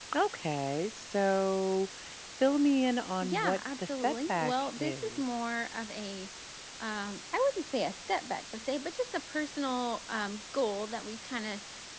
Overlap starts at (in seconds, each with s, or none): 3.2 s